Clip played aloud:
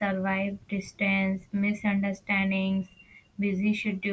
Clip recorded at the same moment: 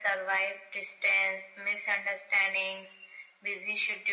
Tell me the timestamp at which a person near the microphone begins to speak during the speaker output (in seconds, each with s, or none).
none